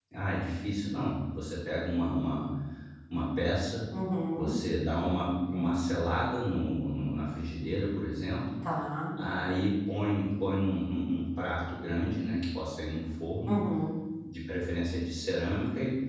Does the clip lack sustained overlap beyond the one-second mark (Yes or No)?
Yes